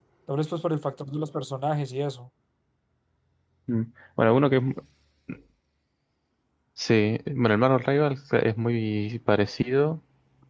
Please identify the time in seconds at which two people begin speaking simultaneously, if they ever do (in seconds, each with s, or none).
none